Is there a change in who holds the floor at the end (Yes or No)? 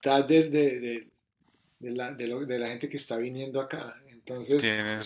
No